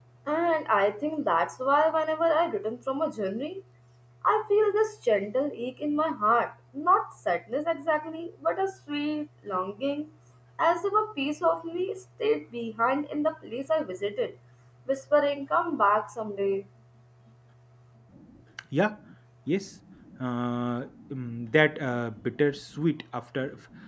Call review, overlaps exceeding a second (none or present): none